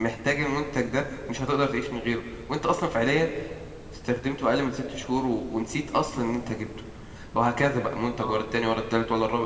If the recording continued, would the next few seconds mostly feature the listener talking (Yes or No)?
No